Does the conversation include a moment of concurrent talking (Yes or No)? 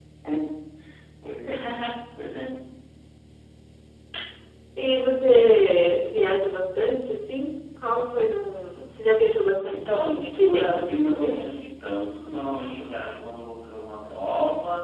Yes